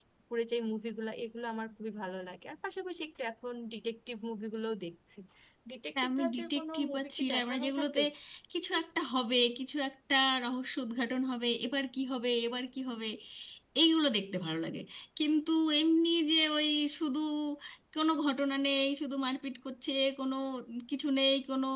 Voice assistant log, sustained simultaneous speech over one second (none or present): present